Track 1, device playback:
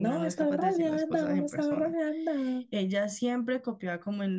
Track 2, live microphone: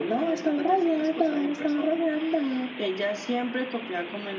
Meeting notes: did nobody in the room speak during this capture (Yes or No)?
Yes